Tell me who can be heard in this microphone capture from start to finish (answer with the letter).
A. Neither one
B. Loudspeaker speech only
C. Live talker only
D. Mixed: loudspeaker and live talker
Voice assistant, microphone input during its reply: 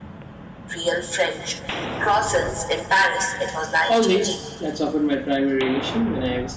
D